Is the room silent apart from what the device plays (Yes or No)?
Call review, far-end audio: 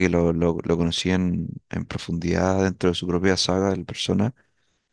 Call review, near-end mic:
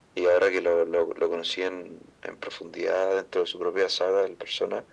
Yes